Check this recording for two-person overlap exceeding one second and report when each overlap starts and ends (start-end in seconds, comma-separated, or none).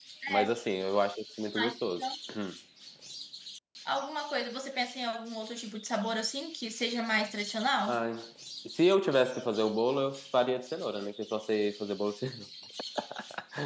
none